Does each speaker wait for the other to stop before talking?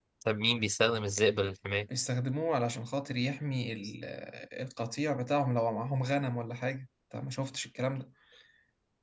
Yes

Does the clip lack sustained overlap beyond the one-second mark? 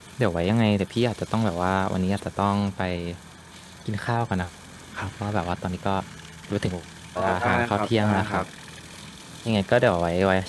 No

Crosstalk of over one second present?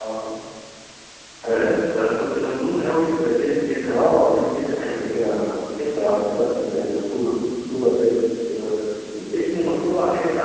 Yes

